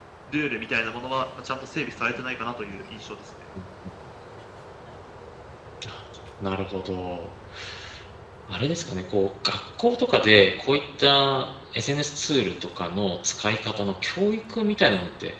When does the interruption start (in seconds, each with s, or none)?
none